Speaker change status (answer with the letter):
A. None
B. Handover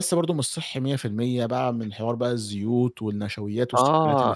B